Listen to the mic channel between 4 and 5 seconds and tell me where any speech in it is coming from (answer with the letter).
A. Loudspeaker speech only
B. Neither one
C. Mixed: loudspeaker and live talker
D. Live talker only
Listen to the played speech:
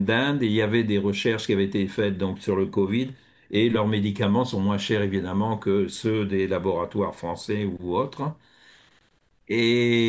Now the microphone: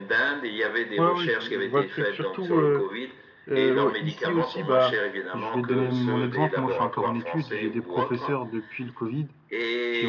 C